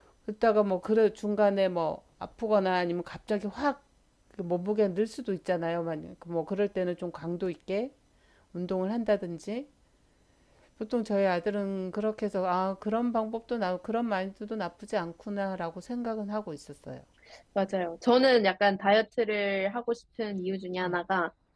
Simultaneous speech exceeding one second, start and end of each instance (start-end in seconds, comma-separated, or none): none